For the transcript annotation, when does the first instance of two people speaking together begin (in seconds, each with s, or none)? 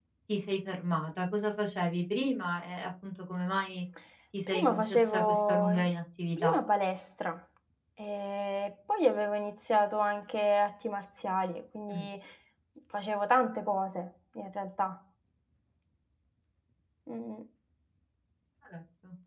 4.5 s